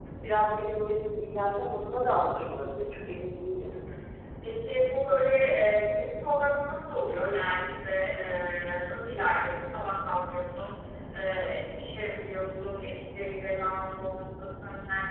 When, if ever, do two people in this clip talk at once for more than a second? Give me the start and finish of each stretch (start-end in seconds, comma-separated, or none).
none